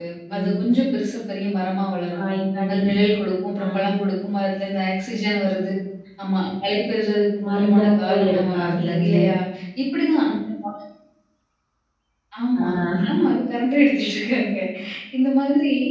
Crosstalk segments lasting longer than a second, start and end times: 7.5-9.2

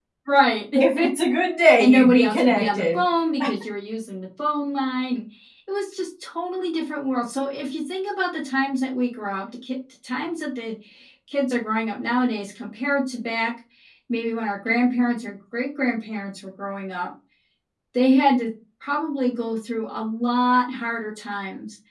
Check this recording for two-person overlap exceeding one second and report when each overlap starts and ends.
1.8-3.0

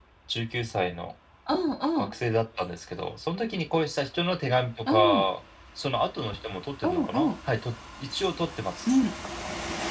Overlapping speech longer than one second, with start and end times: none

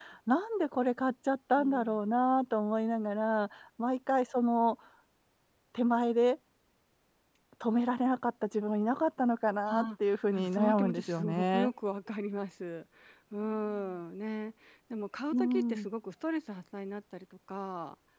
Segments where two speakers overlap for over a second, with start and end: 10.3-11.7

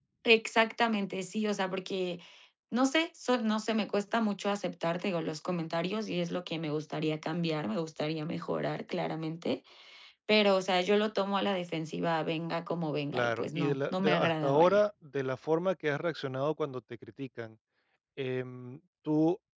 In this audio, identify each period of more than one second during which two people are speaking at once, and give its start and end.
13.1-14.8

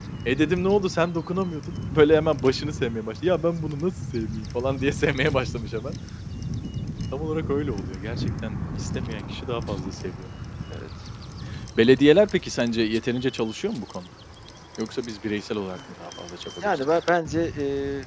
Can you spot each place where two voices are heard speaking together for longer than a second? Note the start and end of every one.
none

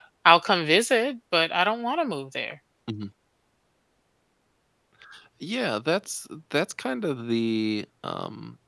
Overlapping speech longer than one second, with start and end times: none

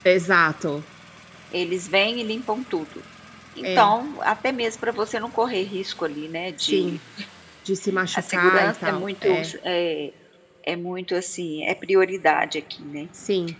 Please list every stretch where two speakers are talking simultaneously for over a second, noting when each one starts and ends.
8.1-9.5

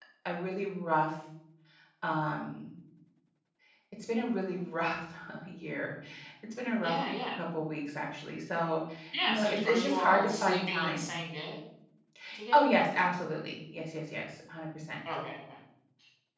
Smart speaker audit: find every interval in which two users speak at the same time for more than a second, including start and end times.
9.2-11.1

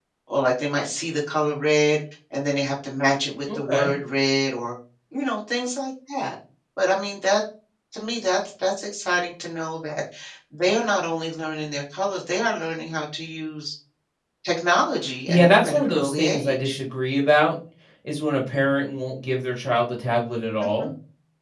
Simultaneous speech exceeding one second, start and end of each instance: 15.3-16.8

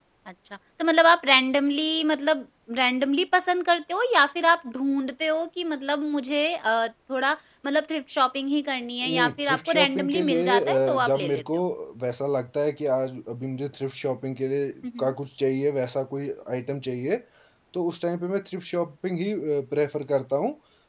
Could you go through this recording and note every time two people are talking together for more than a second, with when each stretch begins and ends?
9.1-11.4

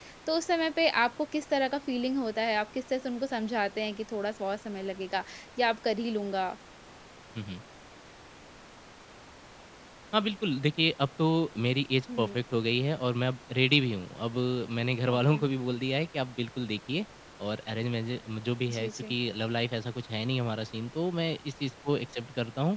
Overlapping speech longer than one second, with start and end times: none

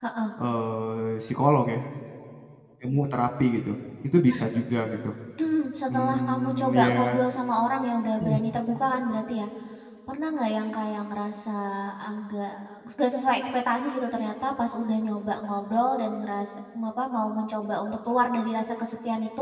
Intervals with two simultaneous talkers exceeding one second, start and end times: 5.9-7.2

